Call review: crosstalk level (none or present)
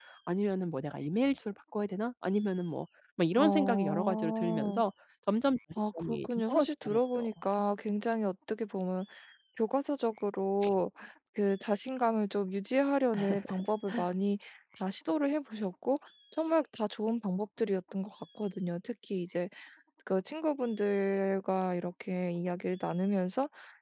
present